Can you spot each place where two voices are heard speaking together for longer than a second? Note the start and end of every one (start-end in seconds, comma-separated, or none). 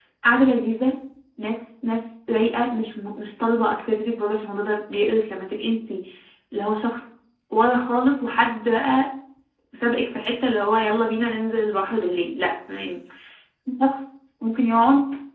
none